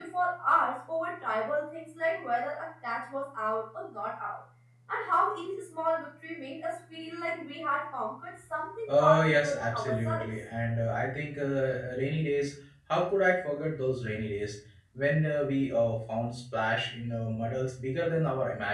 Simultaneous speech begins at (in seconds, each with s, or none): 8.9 s